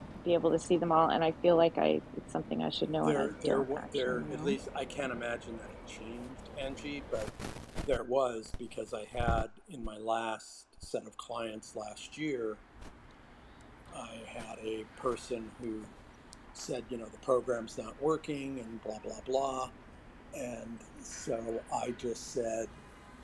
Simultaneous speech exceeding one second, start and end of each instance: 3.0-4.5

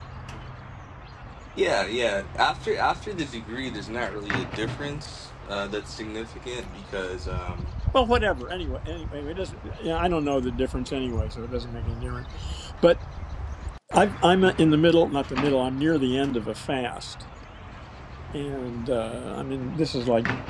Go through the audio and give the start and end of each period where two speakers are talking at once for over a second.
none

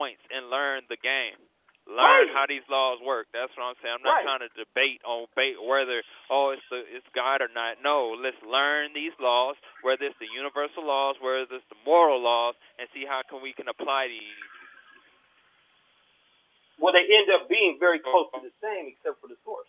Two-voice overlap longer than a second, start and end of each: none

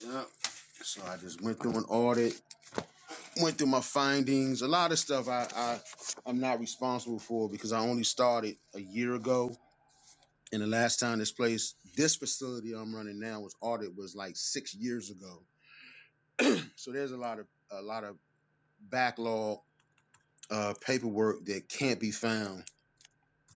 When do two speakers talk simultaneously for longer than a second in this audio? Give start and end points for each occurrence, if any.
none

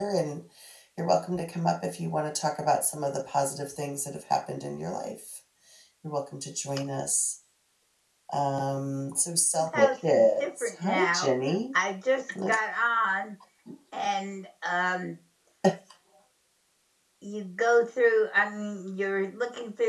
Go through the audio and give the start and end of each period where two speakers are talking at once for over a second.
9.5-11.3

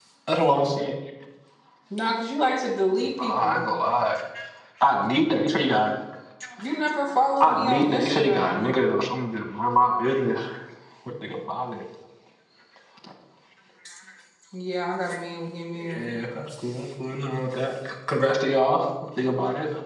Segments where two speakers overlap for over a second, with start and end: 7.4-8.7

